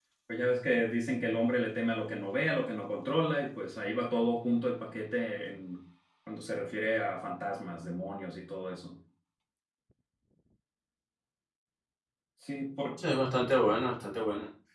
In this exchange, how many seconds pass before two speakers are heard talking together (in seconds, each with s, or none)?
none